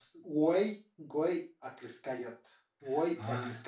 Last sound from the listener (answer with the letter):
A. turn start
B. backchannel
A